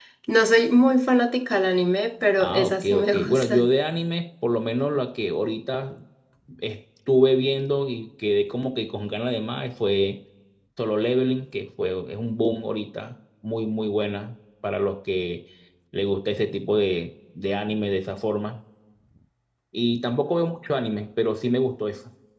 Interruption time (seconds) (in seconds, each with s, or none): 2.4 s